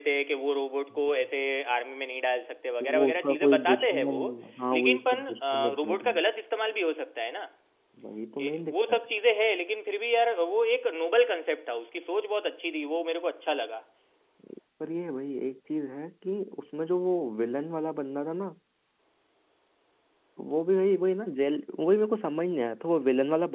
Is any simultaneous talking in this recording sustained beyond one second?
Yes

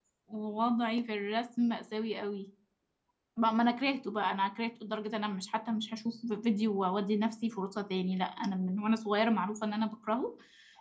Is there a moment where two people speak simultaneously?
No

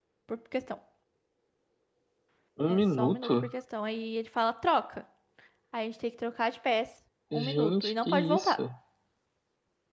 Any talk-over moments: Yes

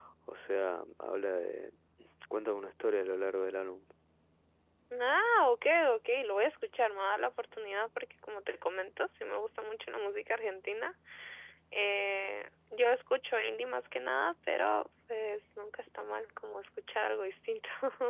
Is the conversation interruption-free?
Yes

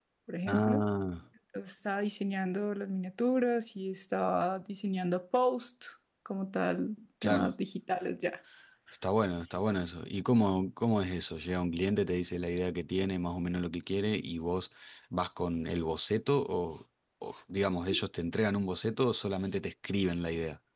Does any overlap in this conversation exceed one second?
No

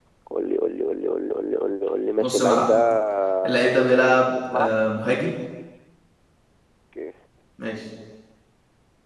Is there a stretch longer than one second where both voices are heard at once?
Yes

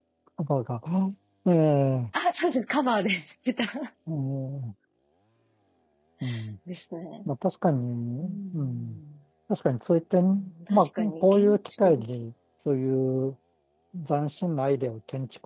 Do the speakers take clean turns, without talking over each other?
No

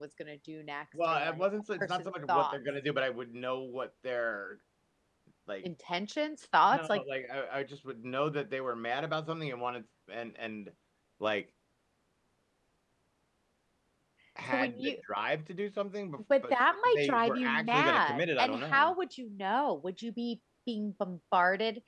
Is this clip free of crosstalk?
No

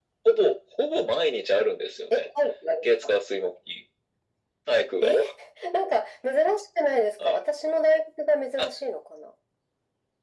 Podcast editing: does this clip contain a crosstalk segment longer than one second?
No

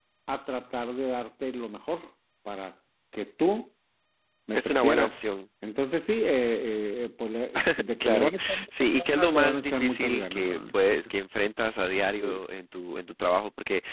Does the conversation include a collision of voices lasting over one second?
Yes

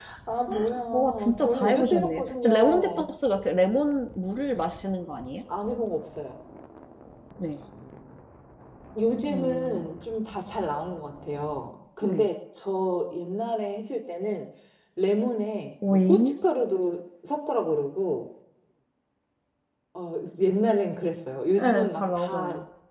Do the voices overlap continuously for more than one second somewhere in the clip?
Yes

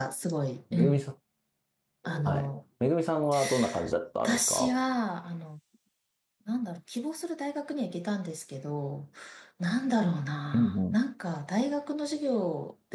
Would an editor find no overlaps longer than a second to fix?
Yes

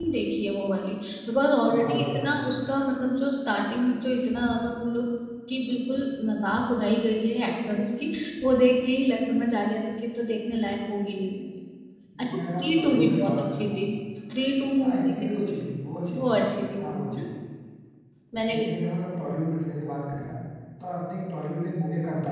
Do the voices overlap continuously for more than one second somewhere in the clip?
Yes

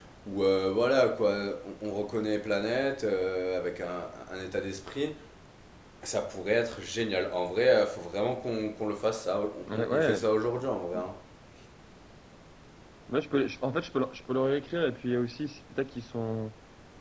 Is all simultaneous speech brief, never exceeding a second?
Yes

